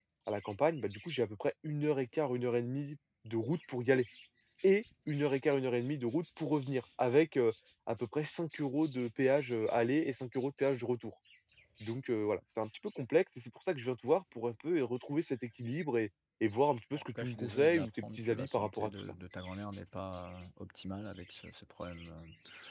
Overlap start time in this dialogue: 17.1 s

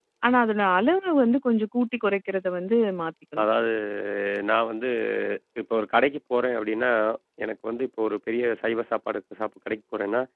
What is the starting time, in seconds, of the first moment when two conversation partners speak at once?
none

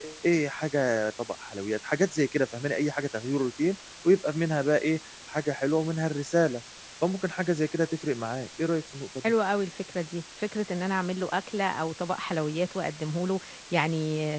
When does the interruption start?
none

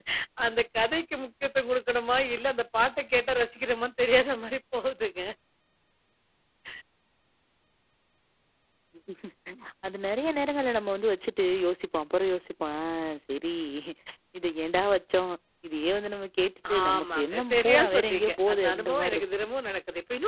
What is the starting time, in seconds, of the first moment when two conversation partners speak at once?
16.6 s

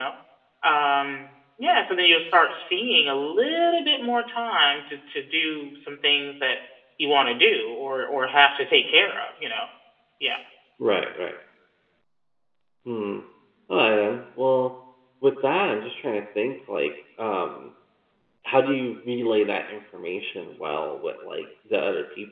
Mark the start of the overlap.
none

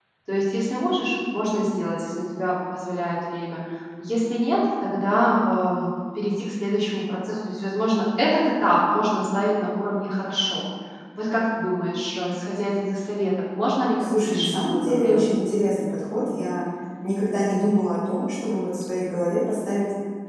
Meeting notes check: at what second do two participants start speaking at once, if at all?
14.0 s

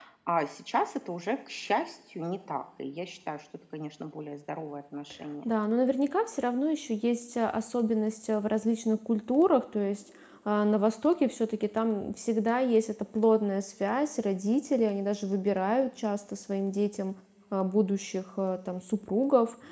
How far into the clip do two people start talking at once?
none

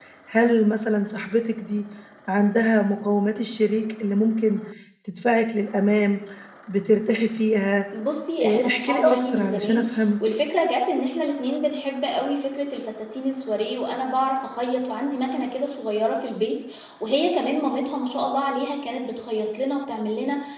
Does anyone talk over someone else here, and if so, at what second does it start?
8.4 s

